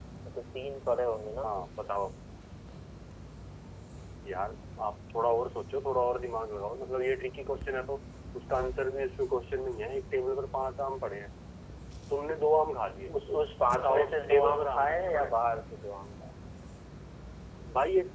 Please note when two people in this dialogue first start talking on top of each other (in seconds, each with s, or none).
13.7 s